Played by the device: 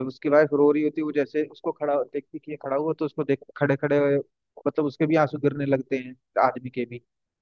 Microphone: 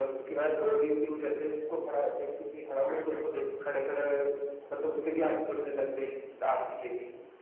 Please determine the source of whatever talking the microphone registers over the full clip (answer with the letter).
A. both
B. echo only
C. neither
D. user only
A